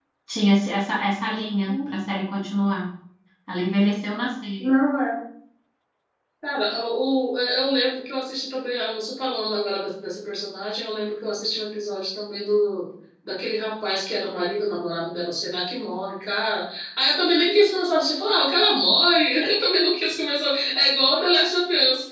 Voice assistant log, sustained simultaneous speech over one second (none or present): none